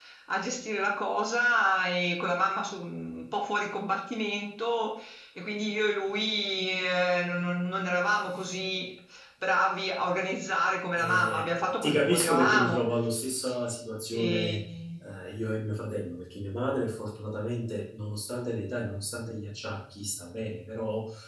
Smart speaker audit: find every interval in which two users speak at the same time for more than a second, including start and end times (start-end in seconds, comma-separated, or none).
11.0-12.8